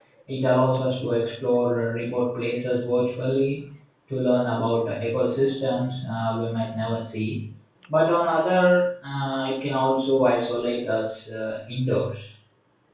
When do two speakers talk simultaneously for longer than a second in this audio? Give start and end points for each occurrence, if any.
none

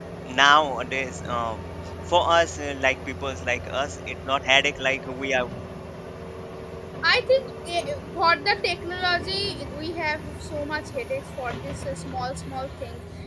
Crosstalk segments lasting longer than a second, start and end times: none

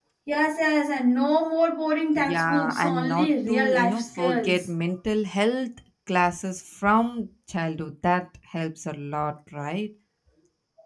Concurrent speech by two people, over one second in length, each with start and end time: 2.2-4.7

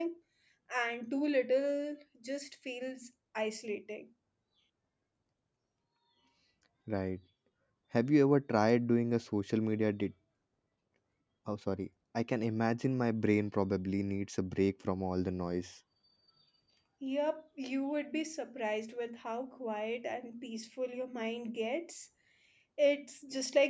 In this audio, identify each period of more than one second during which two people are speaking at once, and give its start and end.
none

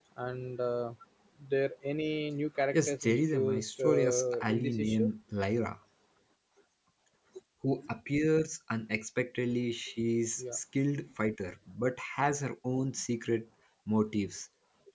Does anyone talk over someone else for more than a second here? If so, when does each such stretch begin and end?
2.7-5.1

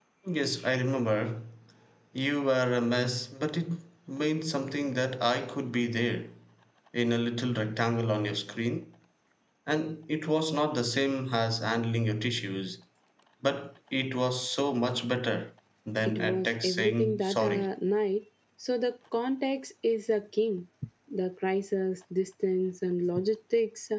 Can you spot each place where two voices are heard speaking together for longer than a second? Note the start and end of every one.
16.0-17.7

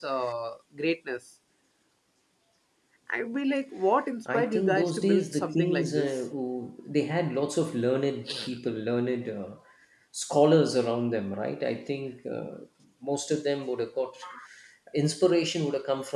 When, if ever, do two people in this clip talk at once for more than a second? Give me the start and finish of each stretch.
4.3-6.2

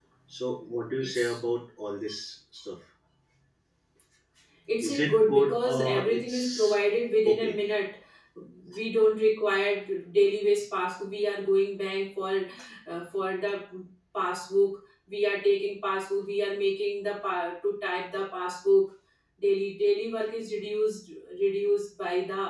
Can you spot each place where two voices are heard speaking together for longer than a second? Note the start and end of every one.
4.8-6.8

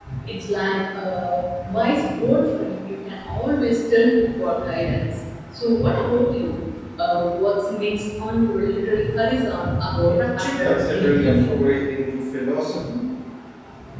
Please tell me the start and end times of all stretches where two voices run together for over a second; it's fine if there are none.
10.2-11.5

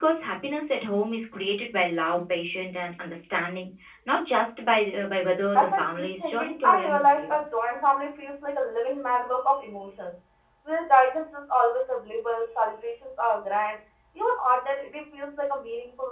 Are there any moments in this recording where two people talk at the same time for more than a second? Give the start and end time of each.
5.5-7.4

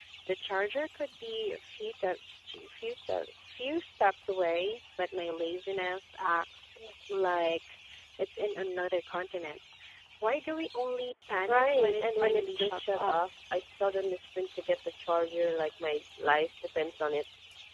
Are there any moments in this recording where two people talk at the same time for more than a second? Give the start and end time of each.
11.5-13.2

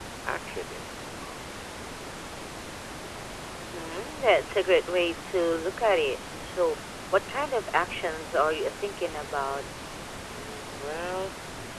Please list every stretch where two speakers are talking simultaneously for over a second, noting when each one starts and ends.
none

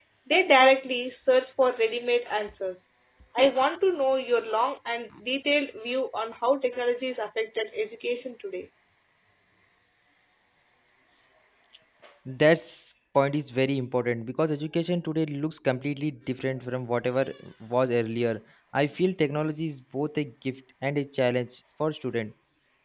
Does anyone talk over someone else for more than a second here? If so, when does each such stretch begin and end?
none

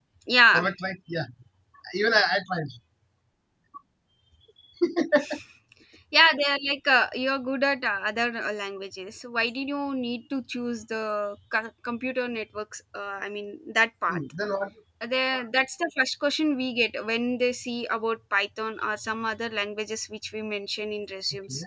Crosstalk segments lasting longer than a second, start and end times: none

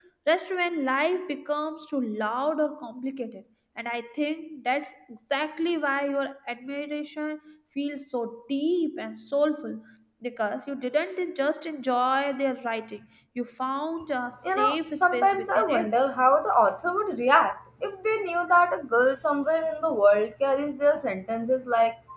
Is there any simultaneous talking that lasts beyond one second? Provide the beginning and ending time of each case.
14.4-15.9

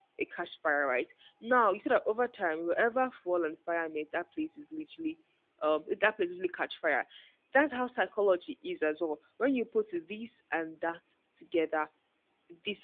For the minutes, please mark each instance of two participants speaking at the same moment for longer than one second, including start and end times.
none

